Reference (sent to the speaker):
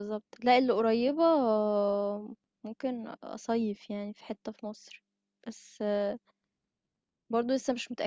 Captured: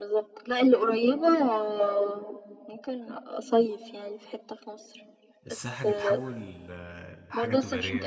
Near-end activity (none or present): present